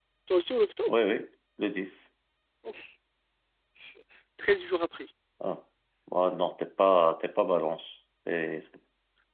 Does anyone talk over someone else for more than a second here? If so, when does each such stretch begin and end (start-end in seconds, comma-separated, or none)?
none